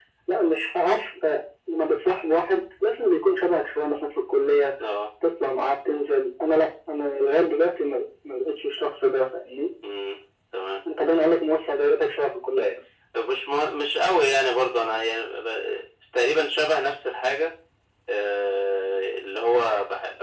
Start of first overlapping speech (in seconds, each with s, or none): none